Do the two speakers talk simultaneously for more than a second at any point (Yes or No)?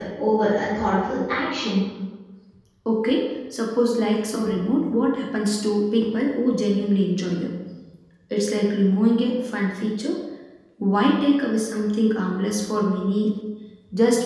No